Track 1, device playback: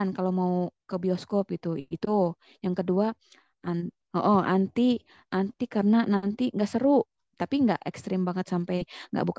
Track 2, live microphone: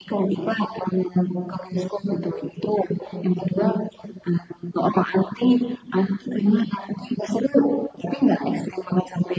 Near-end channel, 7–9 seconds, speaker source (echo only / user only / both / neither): echo only